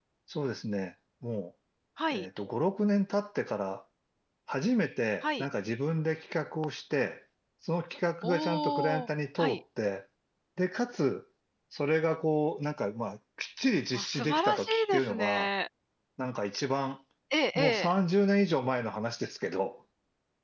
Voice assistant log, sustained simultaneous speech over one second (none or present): present